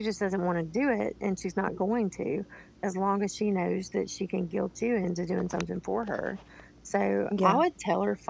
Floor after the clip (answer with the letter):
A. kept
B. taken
A